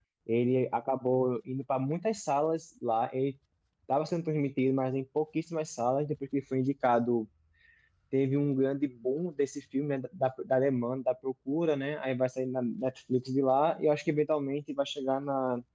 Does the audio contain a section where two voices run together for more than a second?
No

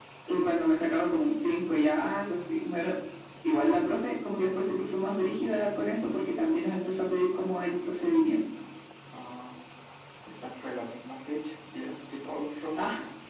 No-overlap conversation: Yes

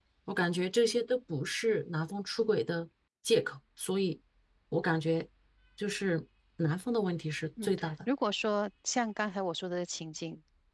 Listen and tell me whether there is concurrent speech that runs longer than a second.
No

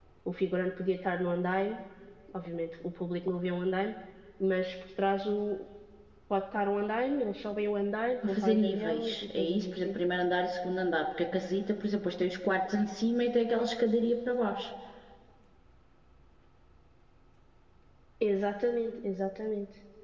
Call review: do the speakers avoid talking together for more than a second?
No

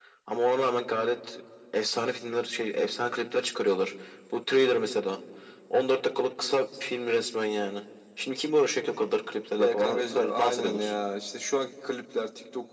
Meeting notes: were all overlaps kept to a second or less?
No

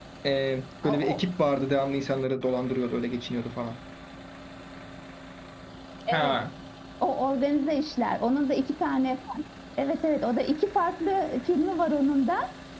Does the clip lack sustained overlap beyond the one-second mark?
Yes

